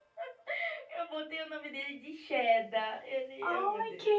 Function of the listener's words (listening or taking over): taking over